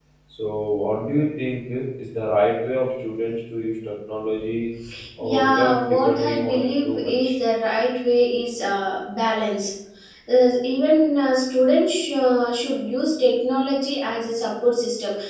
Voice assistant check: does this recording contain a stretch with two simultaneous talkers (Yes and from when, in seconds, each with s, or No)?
Yes, from 5.2 s